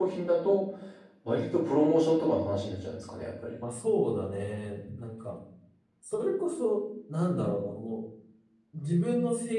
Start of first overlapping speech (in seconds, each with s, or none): none